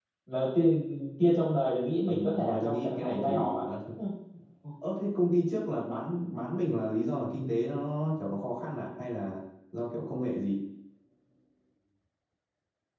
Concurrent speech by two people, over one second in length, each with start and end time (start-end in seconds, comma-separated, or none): 2.0-3.7